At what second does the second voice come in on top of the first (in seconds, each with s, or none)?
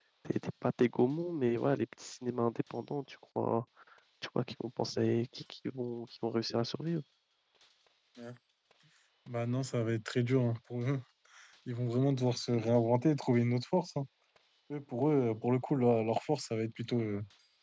none